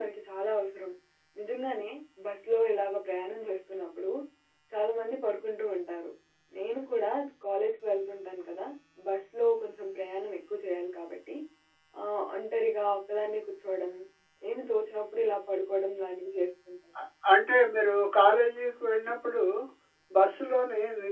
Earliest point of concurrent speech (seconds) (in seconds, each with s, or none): none